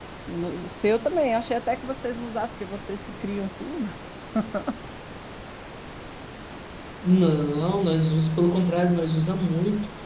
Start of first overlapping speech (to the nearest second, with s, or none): none